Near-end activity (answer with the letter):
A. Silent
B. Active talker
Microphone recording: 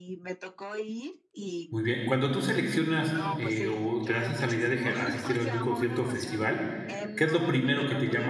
B